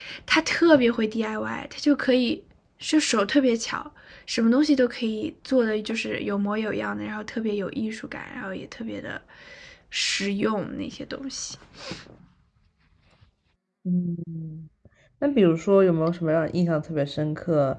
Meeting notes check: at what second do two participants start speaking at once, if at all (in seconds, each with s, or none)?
none